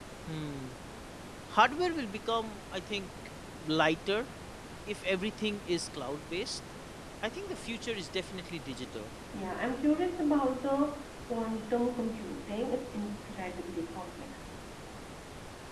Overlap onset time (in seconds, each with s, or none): none